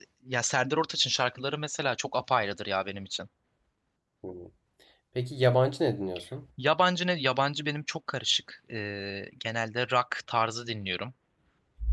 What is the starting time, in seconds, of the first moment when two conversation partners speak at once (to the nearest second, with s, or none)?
none